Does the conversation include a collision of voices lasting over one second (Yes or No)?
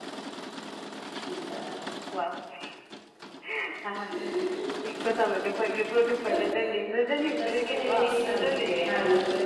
Yes